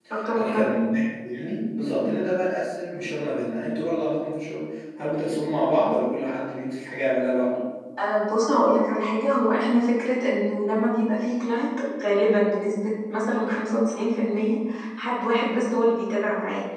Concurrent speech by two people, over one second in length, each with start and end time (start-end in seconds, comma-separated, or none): none